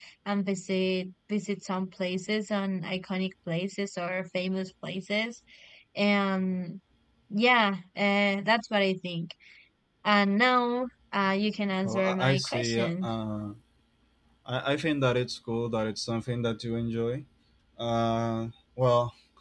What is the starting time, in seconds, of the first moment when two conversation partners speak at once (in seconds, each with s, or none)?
11.8 s